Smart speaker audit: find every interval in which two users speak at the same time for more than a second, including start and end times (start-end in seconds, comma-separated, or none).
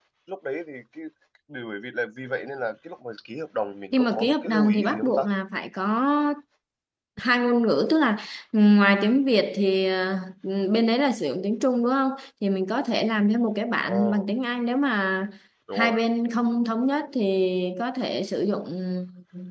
4.0-5.2